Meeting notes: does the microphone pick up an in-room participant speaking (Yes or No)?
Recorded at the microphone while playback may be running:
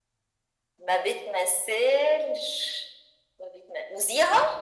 No